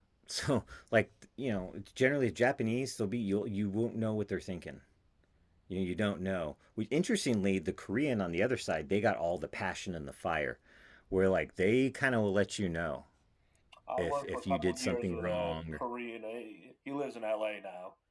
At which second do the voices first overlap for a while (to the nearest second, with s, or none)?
14 s